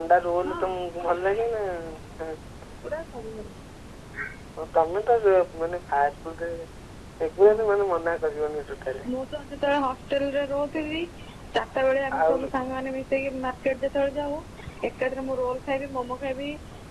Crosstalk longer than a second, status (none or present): none